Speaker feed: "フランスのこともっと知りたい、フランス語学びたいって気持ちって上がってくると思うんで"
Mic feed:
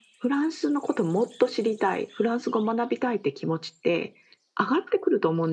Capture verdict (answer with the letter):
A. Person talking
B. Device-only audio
B